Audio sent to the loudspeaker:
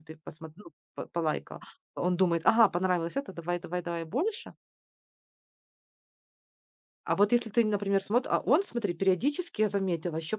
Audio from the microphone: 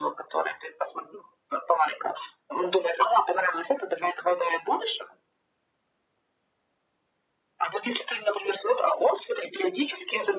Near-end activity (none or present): none